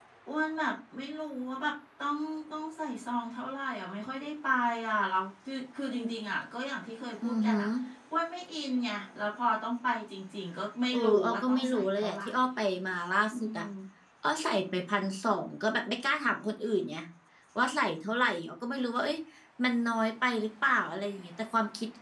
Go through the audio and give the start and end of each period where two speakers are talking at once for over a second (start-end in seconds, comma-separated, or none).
10.9-12.2